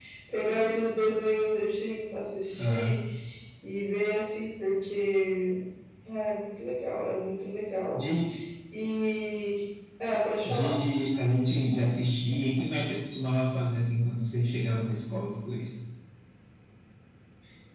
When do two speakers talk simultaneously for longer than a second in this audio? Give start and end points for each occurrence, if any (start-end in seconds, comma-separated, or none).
none